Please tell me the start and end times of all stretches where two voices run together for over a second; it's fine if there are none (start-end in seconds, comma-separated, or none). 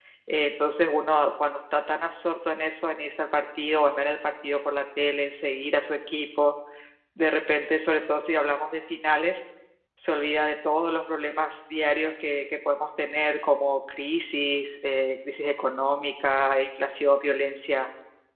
none